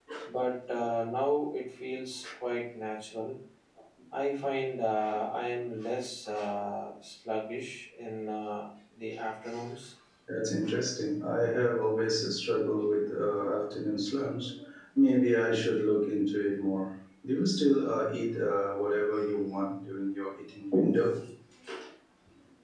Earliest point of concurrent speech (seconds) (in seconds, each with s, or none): none